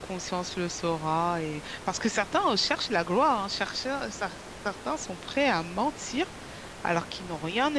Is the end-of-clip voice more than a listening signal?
No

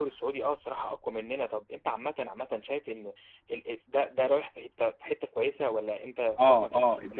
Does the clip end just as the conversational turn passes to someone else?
Yes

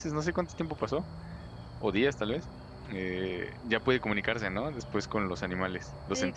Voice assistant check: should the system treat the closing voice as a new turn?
Yes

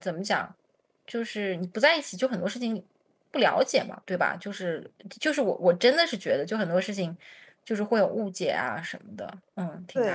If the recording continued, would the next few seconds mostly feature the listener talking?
Yes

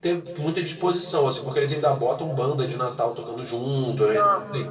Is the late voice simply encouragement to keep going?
Yes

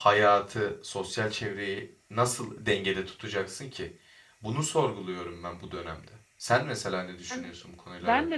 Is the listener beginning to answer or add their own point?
Yes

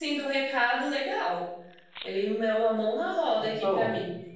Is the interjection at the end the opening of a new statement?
No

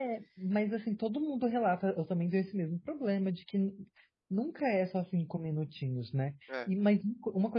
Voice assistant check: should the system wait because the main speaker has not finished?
Yes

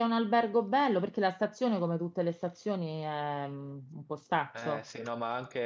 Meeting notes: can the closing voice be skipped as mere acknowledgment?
No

